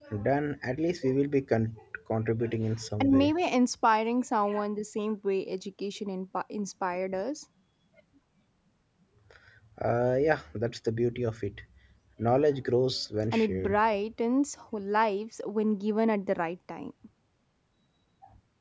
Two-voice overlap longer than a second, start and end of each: none

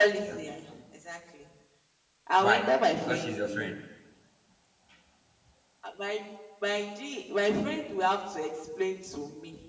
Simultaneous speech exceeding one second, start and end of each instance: 2.4-3.8

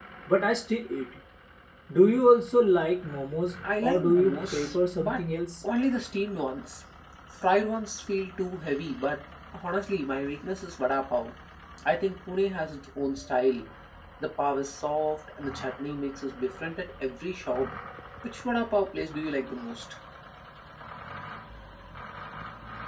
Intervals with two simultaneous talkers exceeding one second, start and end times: 3.8-5.2

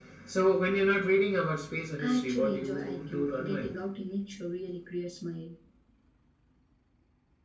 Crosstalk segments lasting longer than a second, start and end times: 2.0-3.7

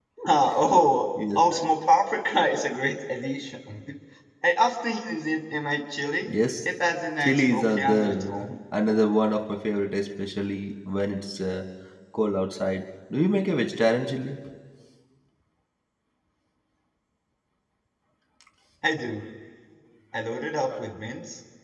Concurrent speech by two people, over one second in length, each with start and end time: 7.2-8.5

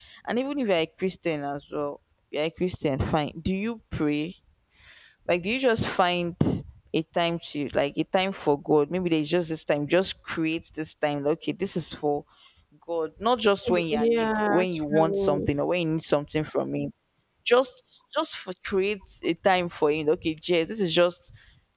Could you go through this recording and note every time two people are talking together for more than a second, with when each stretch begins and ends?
13.9-15.5

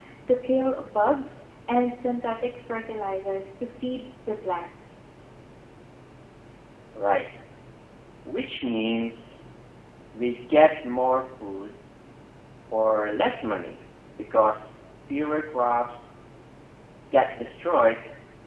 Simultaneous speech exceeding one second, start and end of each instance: none

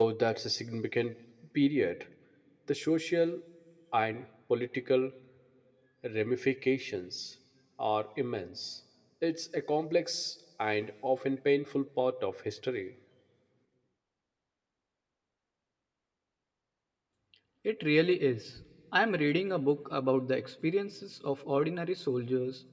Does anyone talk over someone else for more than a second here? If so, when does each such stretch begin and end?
none

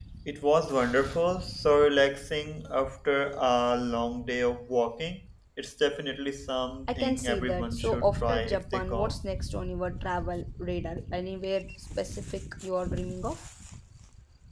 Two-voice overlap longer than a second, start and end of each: 6.9-9.1

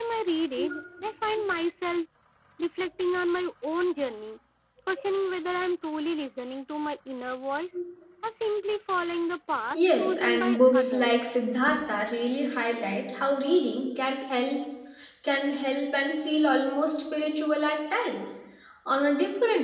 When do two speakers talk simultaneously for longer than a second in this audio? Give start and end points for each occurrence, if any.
9.7-11.1

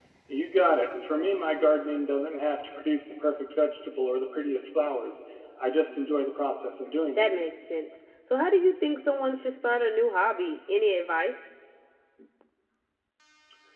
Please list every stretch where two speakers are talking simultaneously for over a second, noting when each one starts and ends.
none

